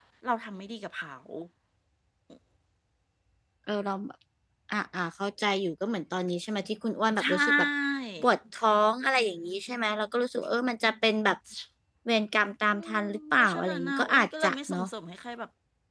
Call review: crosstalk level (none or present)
present